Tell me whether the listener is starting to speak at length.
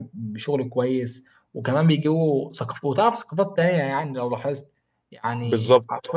No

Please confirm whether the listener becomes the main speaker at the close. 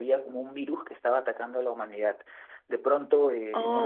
No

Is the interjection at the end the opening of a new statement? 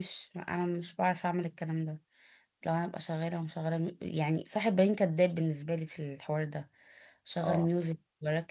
No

